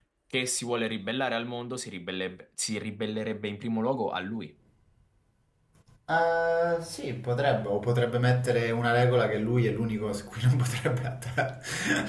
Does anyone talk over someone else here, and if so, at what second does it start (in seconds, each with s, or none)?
none